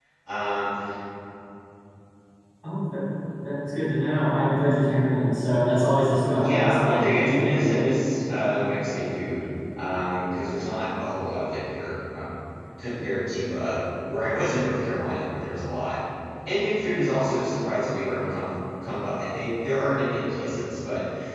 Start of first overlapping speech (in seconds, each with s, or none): 6.4 s